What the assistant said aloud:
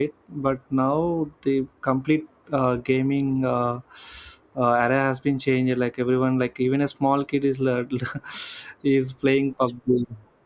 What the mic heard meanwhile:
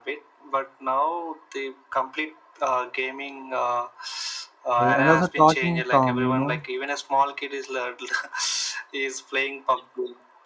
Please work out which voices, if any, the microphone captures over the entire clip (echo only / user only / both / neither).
both